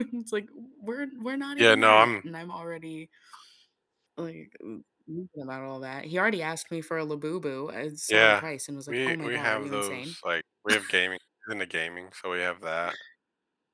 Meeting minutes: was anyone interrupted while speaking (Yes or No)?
Yes